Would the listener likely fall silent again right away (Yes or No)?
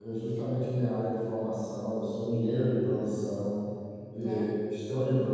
Yes